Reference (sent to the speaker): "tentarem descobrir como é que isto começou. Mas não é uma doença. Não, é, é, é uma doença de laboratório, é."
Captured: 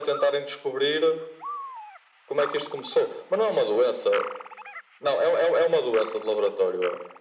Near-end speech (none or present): none